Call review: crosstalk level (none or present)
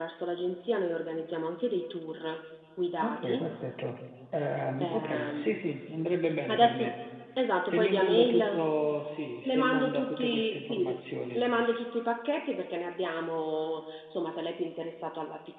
present